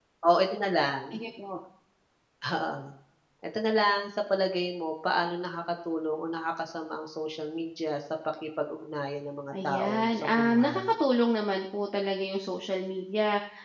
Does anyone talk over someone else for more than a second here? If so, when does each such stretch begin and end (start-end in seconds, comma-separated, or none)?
9.6-10.8